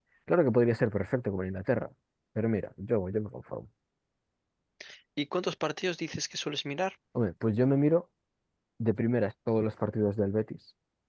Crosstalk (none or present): none